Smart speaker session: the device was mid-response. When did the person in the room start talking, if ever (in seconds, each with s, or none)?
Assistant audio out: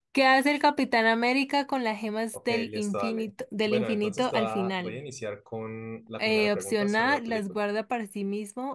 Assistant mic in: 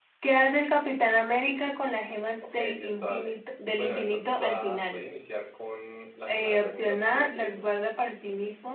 none